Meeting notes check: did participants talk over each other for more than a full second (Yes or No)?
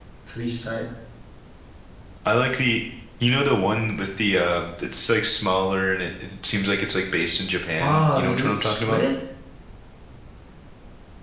Yes